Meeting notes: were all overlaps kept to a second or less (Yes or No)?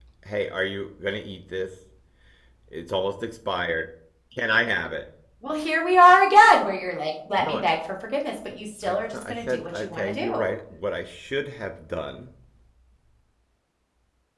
No